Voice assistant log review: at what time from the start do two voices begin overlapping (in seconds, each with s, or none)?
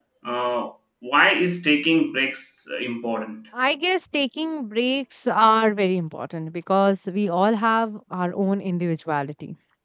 none